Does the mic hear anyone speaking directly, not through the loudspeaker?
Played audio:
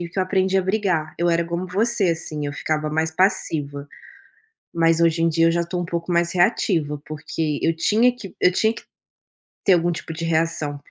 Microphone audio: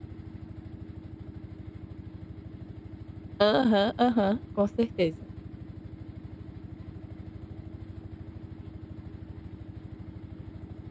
Yes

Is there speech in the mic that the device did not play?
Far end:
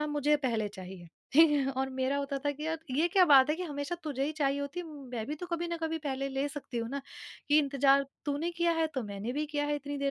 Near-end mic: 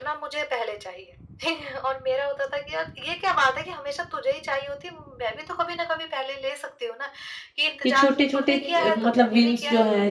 Yes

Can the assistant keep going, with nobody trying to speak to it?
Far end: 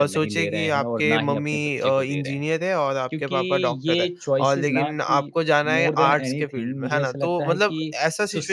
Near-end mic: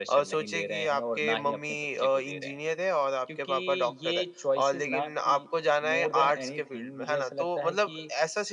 Yes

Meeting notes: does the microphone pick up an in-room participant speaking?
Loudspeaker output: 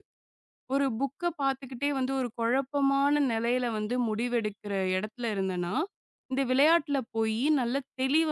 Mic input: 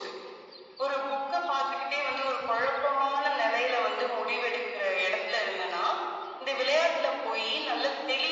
No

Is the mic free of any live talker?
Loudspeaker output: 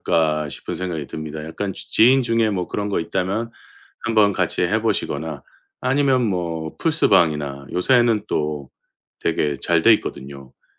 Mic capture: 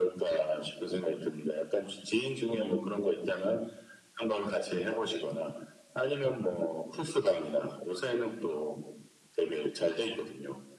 No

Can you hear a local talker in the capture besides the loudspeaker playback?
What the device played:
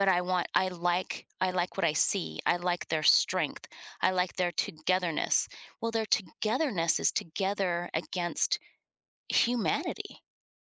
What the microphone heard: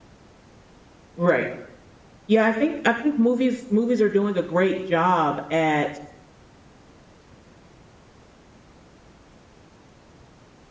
Yes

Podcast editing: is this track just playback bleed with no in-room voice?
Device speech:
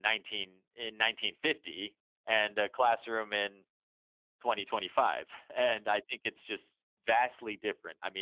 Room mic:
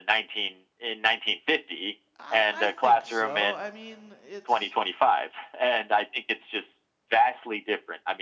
No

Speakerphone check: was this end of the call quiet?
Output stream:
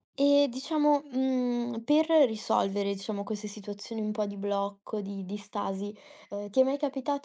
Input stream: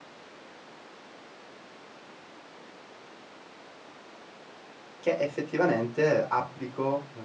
No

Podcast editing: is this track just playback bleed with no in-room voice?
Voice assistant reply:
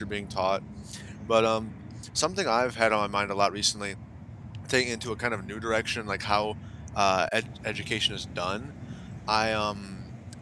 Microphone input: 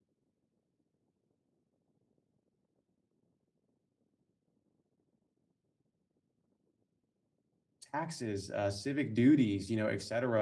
No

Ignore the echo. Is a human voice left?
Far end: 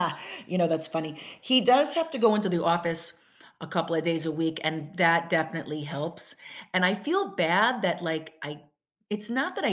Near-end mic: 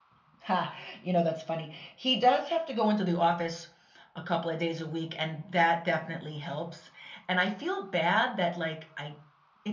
No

